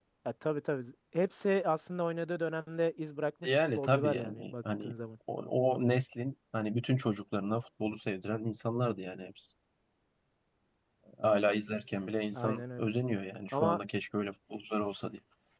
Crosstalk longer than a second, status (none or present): present